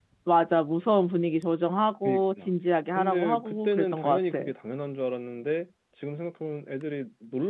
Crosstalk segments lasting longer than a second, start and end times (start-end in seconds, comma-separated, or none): 3.0-4.5